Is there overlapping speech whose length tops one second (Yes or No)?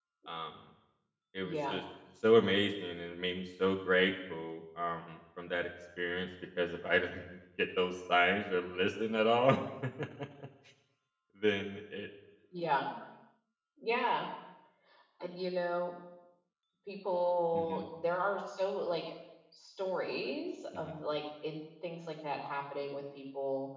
No